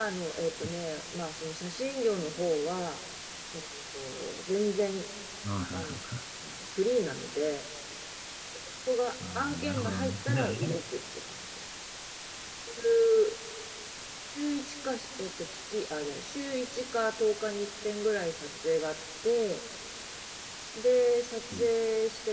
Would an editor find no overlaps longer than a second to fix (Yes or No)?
No